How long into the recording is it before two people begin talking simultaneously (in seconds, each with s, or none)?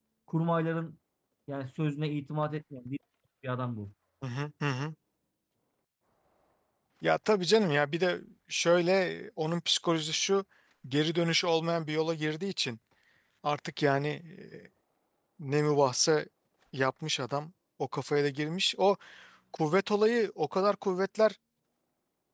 none